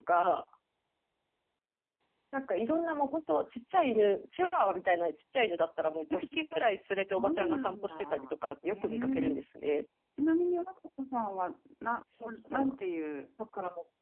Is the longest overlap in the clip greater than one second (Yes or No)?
Yes